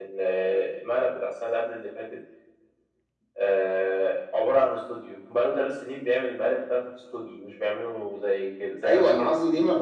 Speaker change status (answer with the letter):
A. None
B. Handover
B